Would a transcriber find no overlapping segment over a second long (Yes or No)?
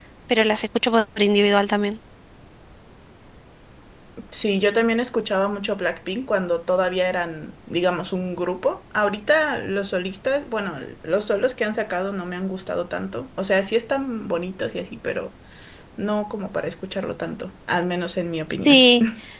Yes